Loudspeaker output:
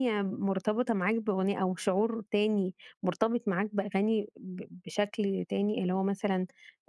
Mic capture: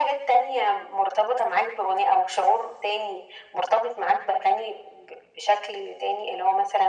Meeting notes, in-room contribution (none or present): none